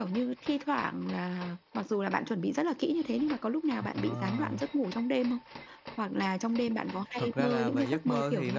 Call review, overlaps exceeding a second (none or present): present